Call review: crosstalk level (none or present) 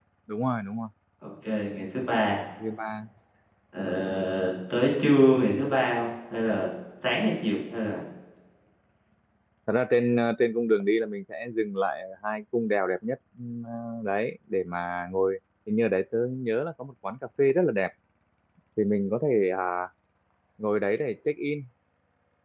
none